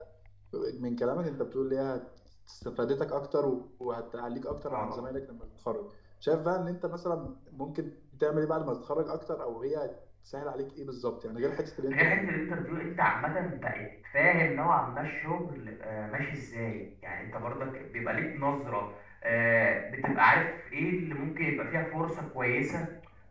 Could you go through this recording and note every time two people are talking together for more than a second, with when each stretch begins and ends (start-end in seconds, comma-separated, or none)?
none